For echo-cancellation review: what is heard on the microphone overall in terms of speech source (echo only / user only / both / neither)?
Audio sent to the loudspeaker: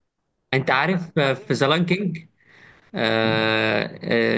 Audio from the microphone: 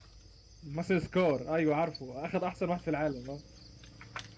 user only